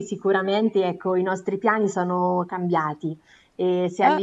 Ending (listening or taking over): listening